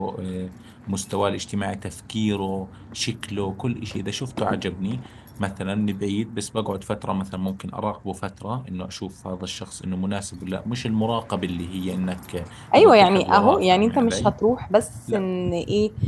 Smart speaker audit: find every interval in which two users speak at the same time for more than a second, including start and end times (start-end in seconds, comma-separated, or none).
12.8-14.3